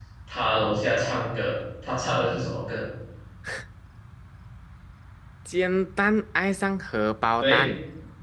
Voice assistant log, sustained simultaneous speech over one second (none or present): none